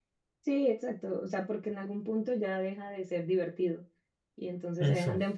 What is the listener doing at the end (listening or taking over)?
listening